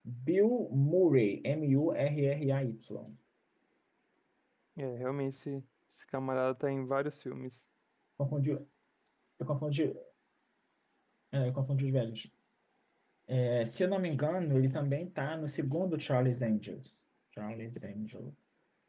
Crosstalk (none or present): none